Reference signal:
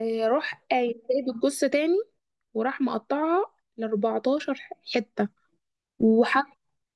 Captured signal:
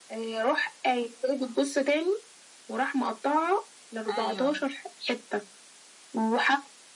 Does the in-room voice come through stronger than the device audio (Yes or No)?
No